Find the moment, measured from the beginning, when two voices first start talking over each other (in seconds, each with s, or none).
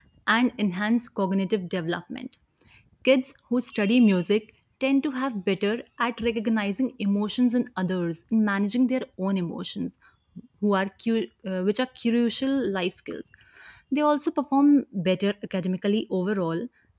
none